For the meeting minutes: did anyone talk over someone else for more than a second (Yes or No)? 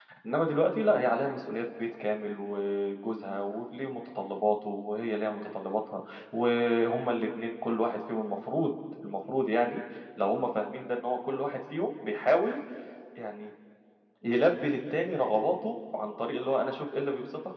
No